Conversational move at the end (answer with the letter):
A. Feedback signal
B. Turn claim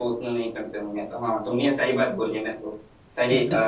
A